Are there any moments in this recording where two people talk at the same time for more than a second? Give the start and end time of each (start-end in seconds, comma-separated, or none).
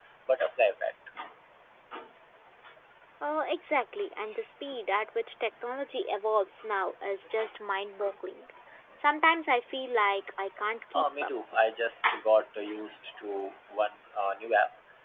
none